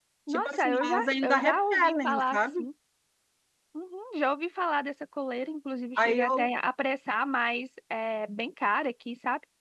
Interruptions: present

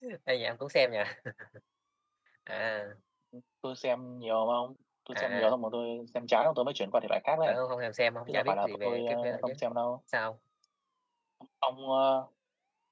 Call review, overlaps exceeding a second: present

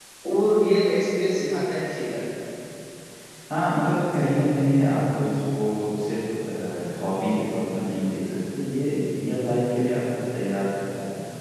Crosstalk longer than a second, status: none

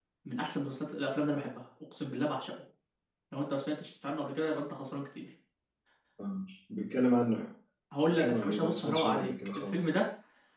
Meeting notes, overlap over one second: present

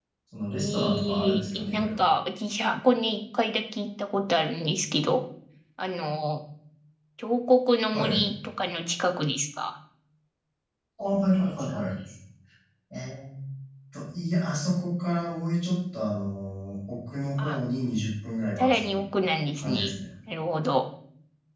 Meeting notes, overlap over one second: present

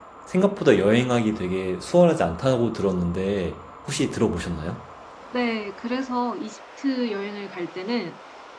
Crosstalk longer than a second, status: none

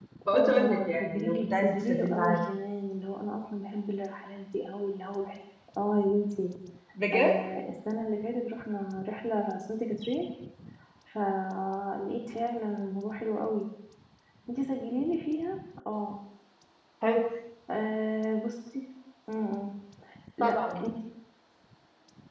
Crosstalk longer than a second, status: present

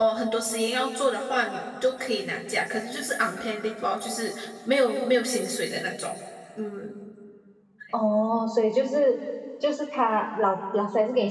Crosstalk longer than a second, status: none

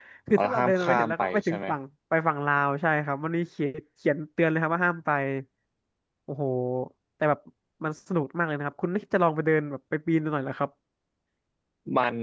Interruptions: present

